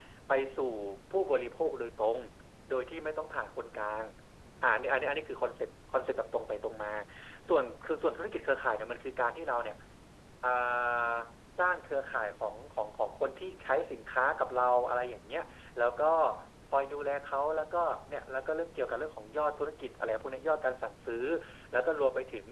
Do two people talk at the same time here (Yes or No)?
No